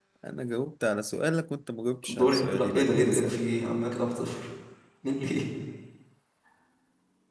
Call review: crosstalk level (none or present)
present